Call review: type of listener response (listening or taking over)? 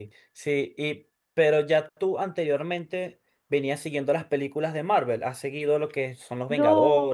taking over